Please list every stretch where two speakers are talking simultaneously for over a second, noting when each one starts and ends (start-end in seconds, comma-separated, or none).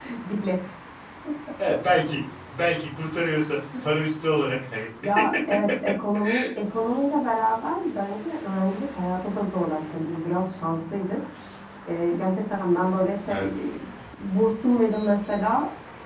none